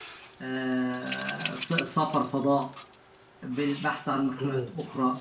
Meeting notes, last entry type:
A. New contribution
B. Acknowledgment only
B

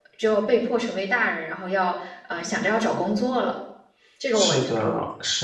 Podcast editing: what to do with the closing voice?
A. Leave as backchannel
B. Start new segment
B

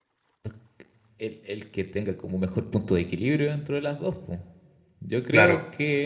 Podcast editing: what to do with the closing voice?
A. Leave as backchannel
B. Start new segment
B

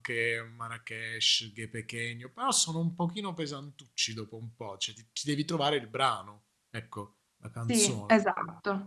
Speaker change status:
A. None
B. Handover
B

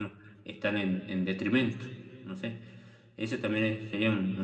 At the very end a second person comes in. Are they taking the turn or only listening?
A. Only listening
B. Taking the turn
A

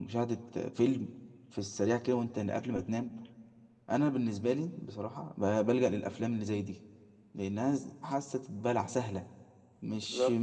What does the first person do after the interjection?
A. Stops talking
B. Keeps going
B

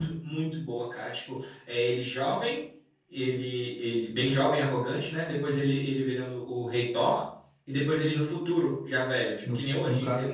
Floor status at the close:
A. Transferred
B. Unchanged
A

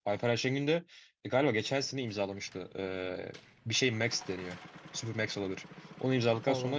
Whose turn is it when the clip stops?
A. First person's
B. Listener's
A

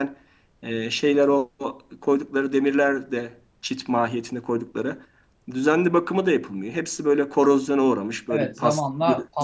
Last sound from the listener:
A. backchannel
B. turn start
B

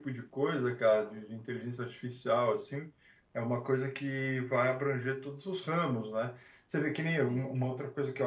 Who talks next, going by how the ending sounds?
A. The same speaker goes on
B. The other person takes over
A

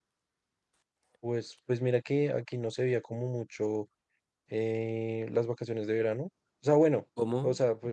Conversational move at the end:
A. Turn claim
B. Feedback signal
B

